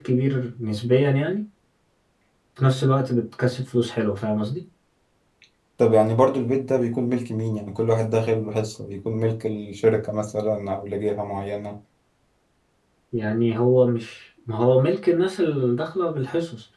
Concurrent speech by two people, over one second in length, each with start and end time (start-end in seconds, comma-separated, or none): none